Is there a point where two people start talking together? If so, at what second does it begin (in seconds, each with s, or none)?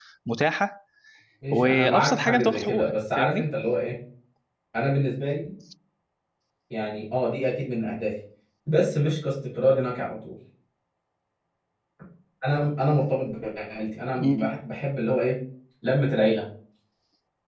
1.5 s